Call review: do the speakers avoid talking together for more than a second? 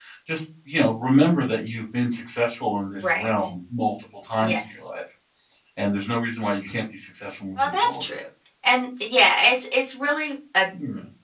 Yes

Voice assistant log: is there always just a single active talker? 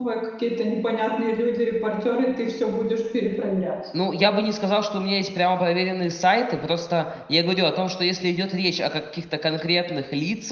Yes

